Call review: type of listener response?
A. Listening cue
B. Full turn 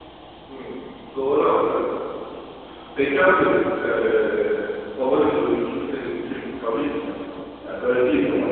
A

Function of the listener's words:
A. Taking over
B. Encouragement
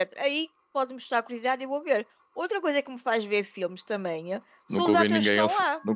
A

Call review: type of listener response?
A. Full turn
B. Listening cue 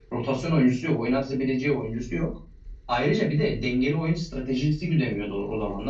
A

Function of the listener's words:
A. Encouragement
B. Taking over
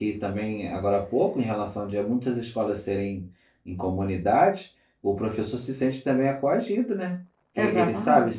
A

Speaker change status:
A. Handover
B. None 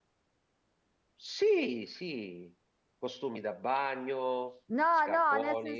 A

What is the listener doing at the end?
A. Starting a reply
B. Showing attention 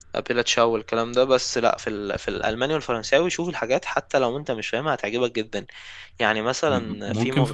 A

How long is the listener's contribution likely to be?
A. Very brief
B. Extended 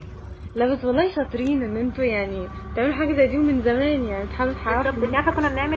B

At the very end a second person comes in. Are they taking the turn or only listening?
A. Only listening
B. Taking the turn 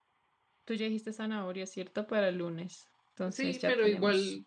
B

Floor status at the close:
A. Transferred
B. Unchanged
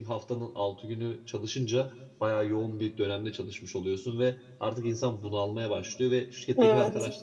B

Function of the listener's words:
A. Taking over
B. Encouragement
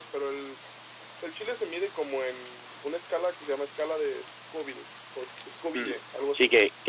A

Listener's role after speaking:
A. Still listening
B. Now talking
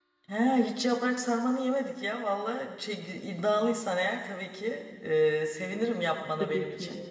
B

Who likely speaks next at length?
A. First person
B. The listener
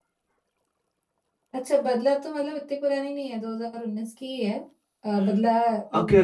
B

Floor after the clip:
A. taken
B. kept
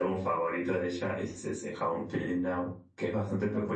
B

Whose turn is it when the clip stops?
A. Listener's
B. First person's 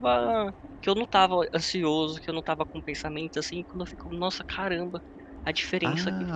A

